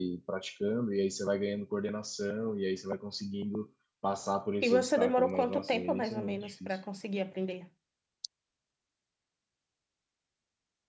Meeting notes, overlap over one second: present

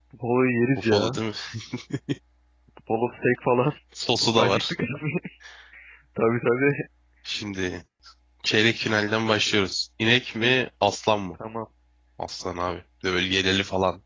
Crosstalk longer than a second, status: none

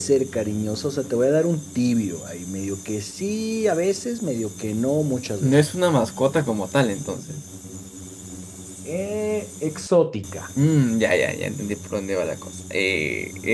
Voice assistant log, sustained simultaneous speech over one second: none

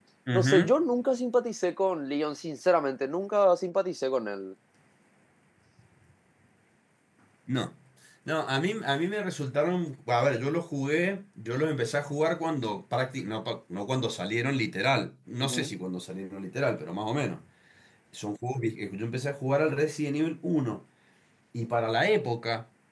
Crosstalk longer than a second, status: none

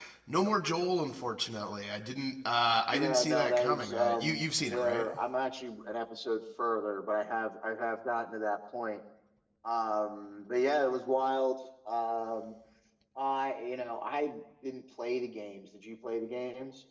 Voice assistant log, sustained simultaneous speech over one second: present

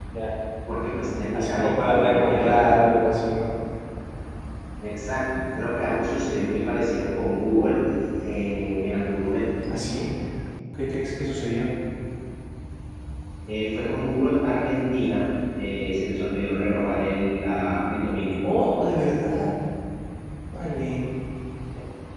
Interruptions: present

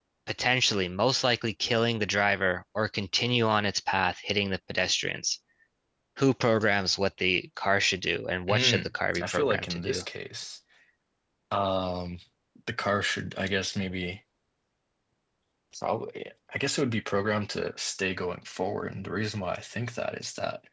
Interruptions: present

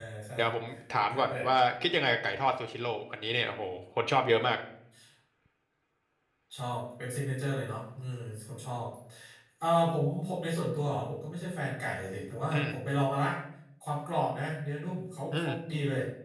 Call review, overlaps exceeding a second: none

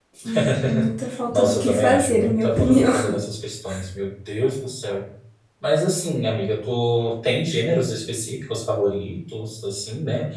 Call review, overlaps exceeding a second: present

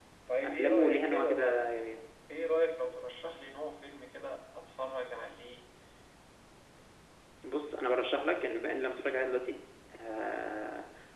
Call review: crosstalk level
present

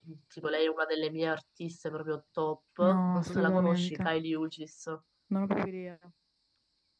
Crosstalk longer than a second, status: present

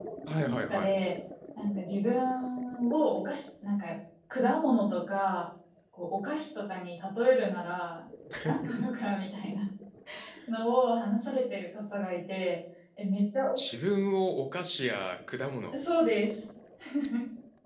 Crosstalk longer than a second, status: none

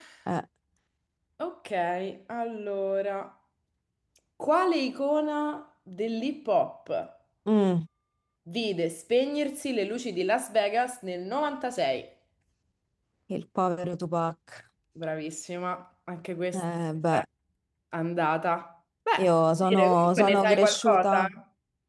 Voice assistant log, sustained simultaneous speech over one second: present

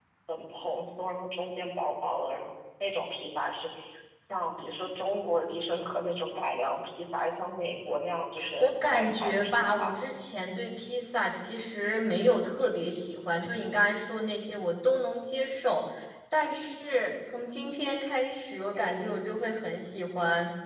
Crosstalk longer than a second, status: present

